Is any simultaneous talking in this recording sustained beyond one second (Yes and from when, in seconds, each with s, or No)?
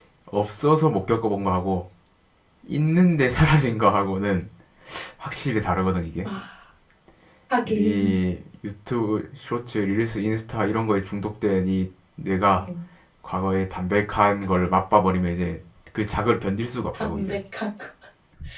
No